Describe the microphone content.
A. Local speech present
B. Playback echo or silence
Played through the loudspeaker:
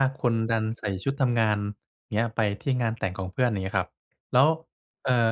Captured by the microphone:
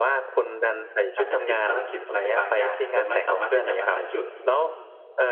A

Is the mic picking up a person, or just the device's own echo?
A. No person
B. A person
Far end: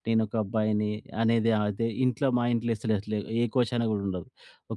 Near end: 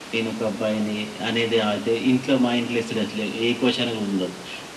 A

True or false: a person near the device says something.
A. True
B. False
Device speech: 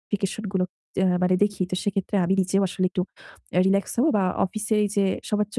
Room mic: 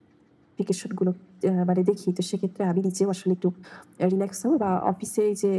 B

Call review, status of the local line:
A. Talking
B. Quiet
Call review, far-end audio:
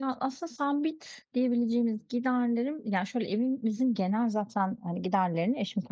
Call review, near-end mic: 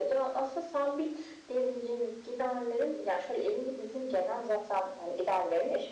B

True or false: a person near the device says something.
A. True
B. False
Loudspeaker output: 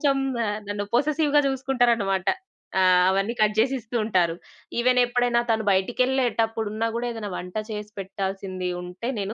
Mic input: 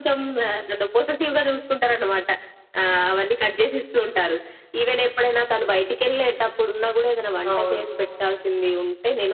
A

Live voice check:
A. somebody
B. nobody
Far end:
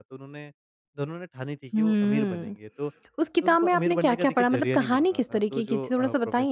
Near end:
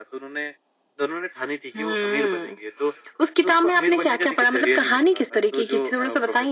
B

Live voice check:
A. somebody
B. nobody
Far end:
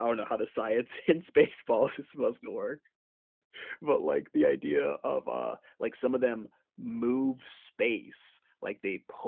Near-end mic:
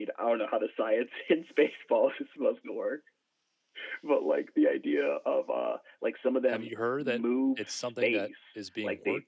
A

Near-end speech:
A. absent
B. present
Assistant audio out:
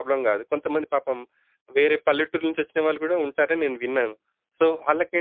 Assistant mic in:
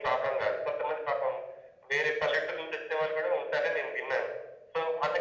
A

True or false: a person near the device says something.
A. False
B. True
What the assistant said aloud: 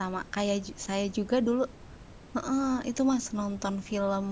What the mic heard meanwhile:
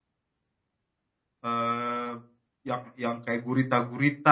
B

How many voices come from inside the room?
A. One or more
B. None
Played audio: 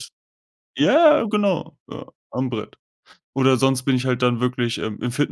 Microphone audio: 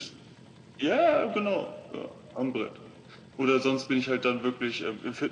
B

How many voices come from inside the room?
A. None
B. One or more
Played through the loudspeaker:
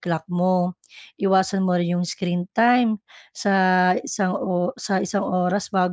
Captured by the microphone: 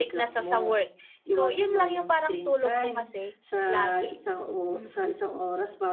B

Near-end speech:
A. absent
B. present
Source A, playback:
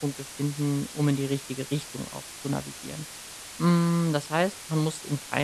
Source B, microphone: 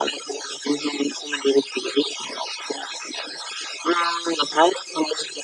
A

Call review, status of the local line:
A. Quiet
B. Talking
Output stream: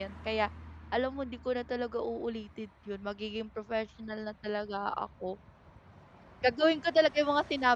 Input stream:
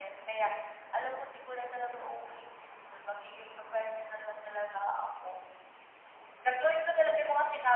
A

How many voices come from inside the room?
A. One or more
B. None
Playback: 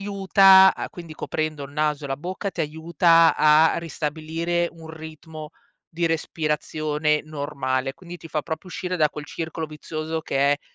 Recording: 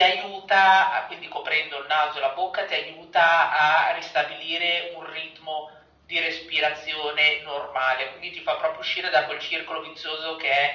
B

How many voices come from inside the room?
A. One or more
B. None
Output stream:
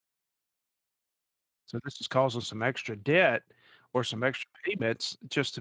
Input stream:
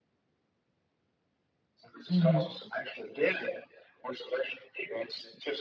A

